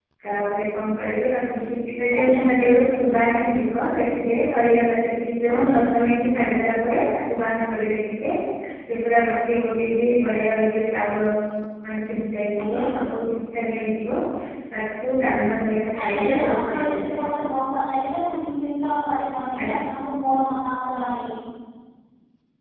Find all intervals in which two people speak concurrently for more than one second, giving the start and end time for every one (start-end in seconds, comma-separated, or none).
16.0-17.3